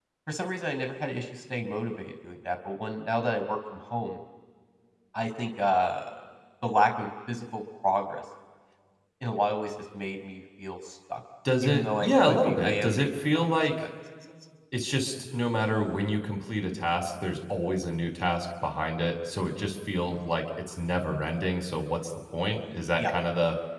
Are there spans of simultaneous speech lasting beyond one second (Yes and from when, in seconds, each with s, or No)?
Yes, from 11.4 s